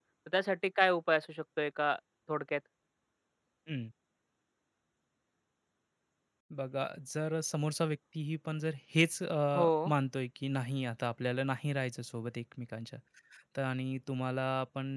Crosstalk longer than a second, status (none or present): none